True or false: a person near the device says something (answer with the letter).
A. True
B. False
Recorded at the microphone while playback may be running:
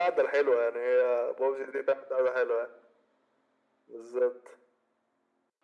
B